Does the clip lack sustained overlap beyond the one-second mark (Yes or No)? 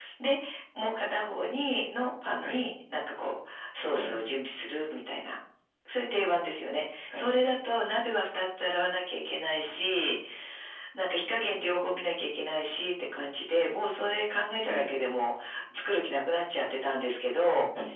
Yes